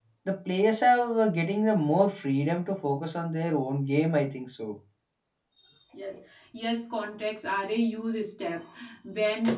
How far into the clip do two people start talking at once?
none

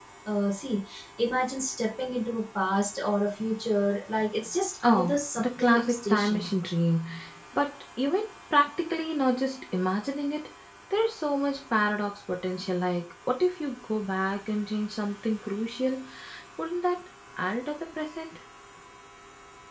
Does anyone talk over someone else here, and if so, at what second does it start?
5 s

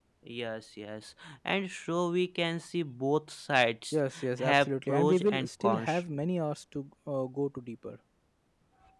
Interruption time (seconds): 4 s

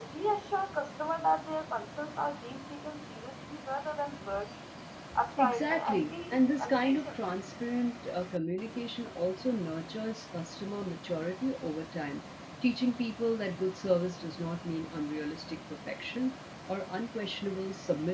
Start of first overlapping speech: 5 s

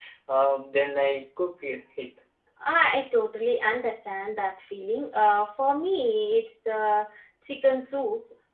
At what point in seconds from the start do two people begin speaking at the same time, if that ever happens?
none

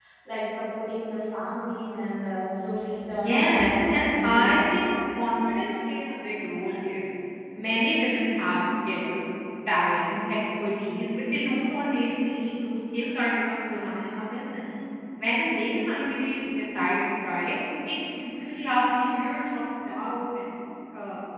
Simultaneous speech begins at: 3 s

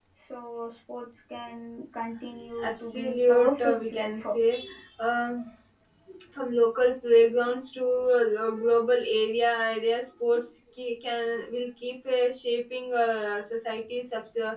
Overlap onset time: 3 s

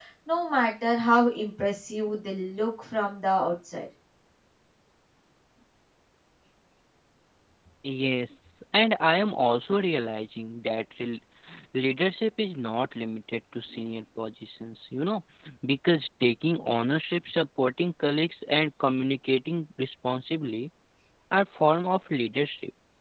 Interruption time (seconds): none

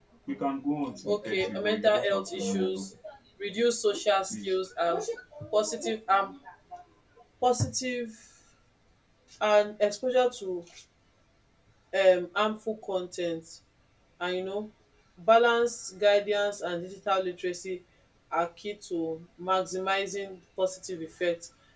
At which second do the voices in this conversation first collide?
1 s

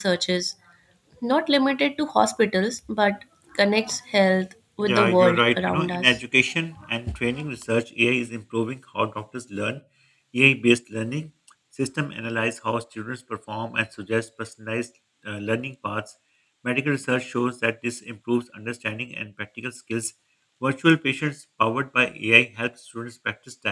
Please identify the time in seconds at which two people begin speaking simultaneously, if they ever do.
5 s

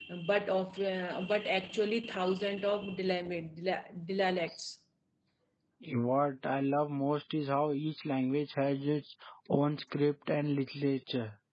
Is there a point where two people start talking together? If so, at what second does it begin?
none

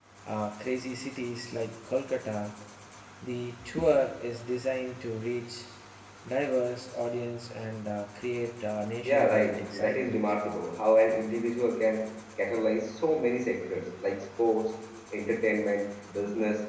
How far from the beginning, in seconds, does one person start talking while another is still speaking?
9 s

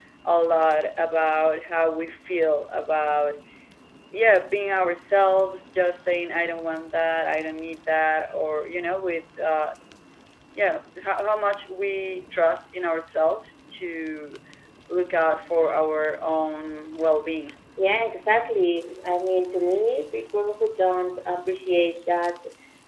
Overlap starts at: none

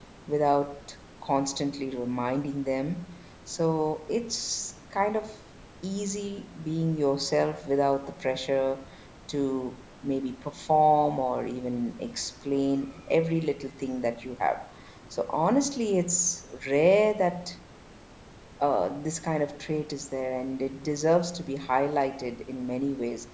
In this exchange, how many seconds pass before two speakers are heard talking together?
none

